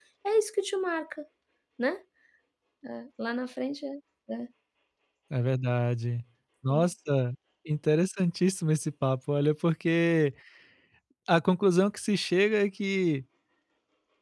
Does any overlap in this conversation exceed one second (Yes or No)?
No